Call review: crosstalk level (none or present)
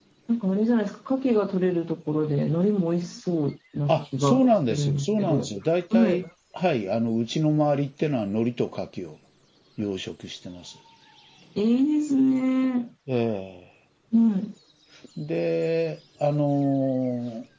present